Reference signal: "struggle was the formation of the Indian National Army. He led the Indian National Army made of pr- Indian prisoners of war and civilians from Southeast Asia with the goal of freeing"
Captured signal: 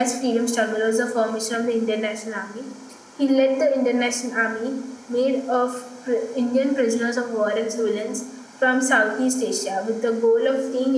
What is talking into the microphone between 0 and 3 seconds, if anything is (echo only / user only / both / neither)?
echo only